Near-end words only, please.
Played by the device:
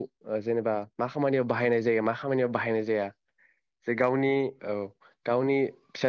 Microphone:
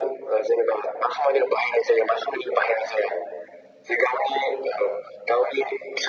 none

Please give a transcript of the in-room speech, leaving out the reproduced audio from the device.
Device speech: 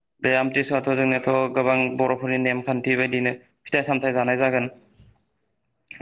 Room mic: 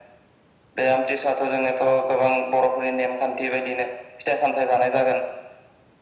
none

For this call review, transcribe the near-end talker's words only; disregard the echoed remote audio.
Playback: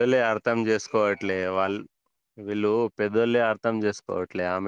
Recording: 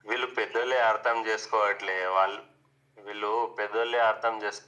none

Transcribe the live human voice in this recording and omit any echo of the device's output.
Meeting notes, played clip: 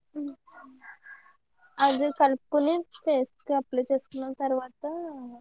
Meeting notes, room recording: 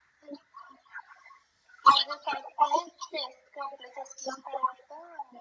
none

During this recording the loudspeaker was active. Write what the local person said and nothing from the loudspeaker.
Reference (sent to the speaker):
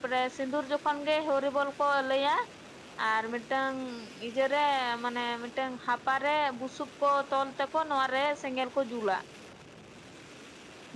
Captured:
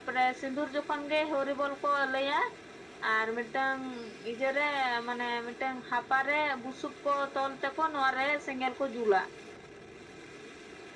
none

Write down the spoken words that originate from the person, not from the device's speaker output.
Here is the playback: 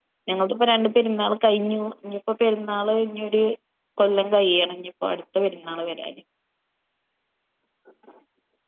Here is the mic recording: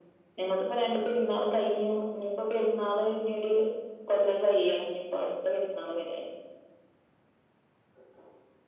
none

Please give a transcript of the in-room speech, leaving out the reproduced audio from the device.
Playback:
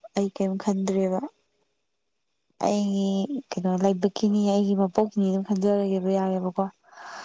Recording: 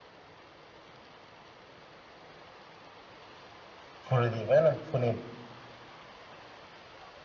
ꯐꯨꯔꯗꯤ ꯒꯥꯖꯅꯥ ꯐꯨꯅꯤ

